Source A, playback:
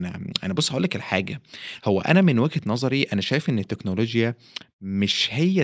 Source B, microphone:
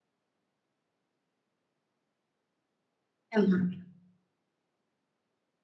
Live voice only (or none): يا نهار أبيض!